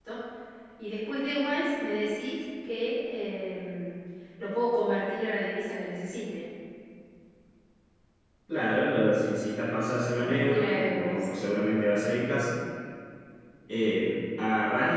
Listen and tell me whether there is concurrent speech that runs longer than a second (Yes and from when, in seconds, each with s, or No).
Yes, from 10.2 s